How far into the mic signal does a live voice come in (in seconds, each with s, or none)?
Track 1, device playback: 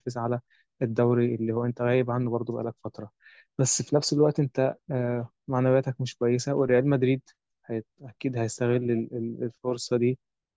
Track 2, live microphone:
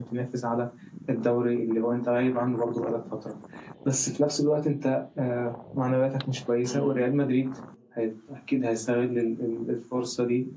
6.6 s